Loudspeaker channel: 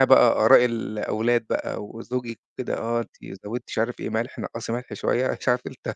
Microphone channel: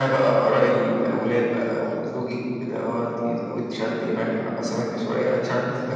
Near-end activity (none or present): none